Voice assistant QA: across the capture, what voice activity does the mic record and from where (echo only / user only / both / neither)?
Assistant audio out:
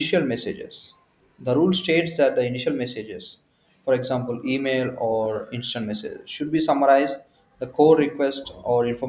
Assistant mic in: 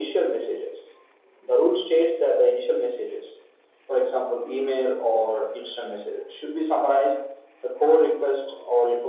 echo only